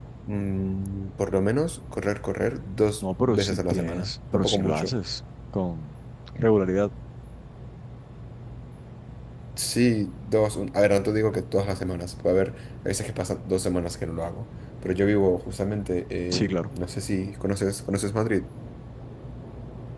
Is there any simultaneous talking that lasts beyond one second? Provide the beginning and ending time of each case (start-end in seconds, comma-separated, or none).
3.2-4.9